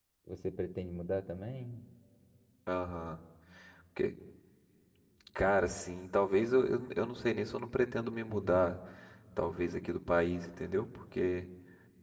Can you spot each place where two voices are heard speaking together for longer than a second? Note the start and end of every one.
none

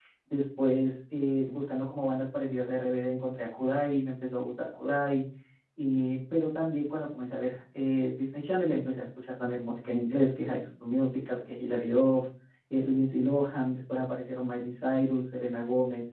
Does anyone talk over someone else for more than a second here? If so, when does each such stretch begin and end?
none

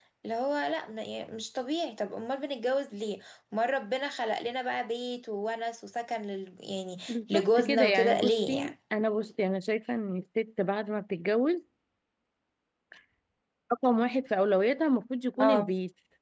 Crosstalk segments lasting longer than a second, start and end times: 7.1-8.7

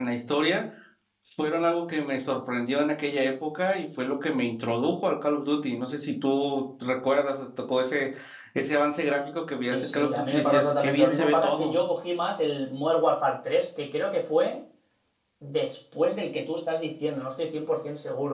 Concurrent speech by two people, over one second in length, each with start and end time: 9.7-11.8

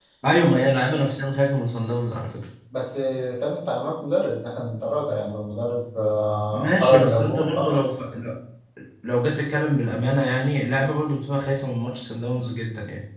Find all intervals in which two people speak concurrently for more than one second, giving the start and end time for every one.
6.5-8.1

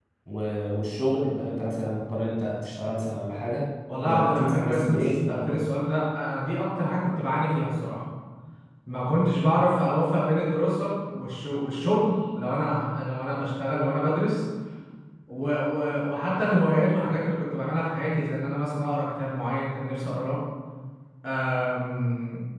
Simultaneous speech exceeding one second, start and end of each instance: 4.0-5.6

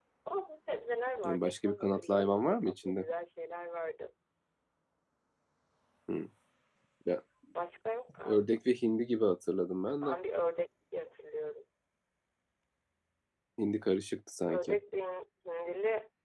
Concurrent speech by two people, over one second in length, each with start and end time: 1.2-3.0

